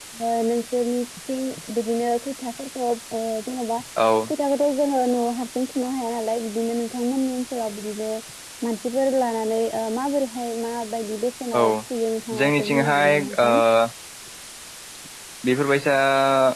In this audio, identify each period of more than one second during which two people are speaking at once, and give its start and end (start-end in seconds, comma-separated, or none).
12.4-13.6